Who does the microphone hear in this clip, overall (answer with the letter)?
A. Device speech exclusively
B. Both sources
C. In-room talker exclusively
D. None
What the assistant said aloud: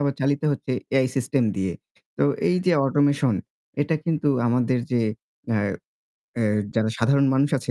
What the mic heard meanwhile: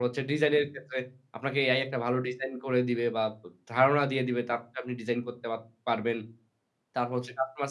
C